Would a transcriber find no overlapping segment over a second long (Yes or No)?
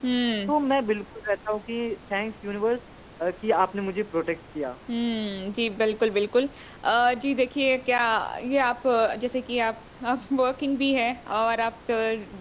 Yes